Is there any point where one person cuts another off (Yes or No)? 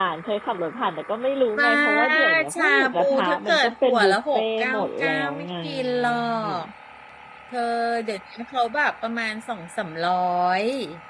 Yes